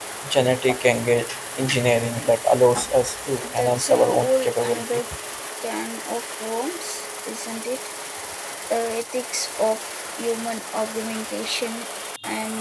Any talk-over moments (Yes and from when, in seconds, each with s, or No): Yes, from 3.4 s